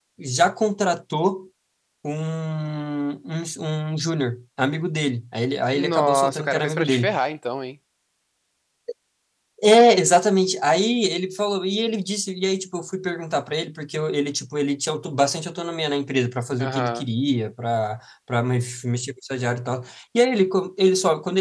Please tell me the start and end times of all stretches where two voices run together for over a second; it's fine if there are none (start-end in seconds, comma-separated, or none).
5.7-7.1